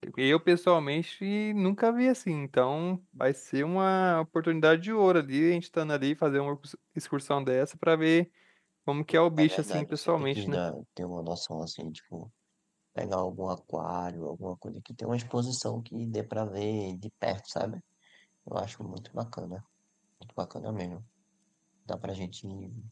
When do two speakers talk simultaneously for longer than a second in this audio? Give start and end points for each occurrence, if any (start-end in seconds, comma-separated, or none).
9.4-10.6